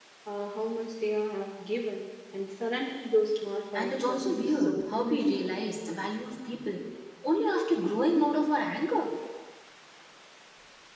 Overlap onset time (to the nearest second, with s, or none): 4 s